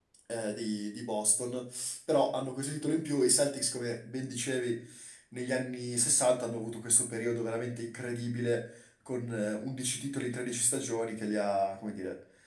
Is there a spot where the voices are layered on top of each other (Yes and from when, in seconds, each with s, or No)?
No